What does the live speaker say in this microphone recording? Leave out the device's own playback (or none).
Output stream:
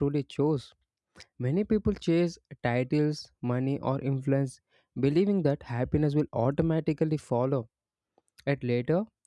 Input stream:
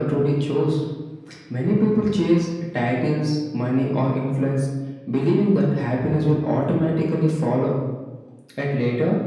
none